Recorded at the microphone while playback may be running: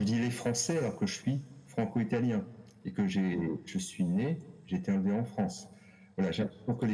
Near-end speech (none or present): none